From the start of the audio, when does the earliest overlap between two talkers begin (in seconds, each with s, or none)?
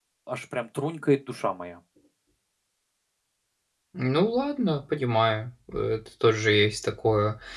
none